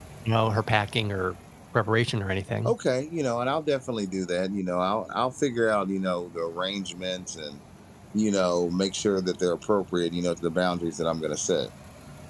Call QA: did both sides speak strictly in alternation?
Yes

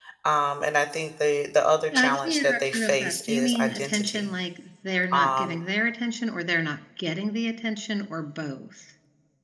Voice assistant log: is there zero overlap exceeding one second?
No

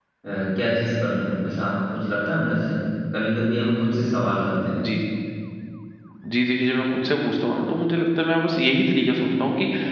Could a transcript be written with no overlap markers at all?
Yes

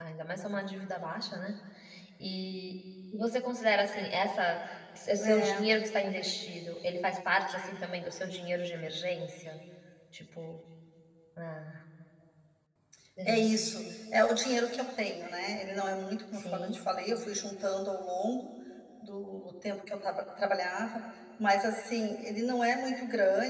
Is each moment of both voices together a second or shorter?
Yes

